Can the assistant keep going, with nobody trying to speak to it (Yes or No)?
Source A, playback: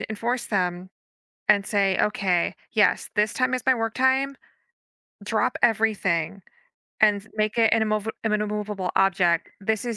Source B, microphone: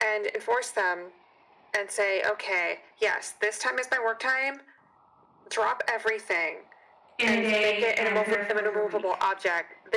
No